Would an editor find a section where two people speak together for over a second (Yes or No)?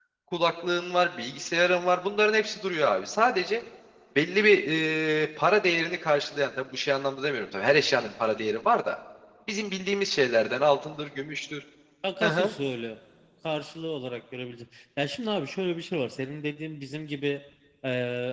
No